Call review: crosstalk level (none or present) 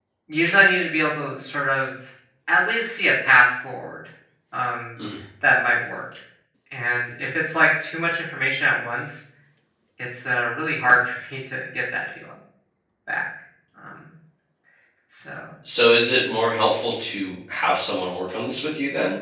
none